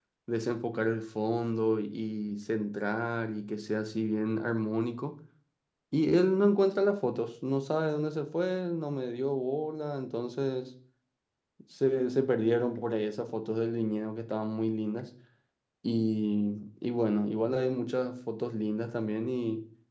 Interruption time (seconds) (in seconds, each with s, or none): none